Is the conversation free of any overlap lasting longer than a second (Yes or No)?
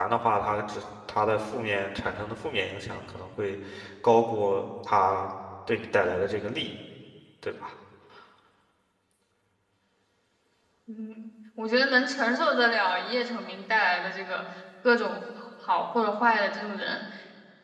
Yes